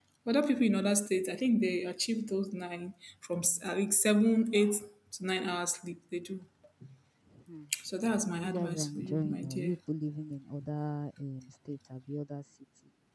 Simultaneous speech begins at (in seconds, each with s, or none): 8.4 s